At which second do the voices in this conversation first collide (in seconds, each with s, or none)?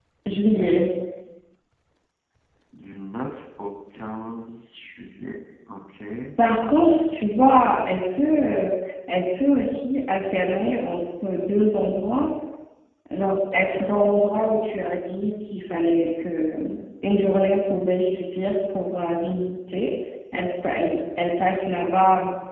none